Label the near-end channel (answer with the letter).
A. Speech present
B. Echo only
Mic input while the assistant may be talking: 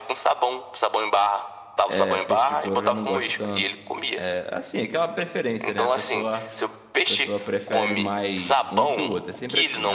A